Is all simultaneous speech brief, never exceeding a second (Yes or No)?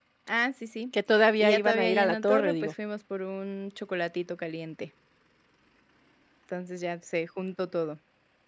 No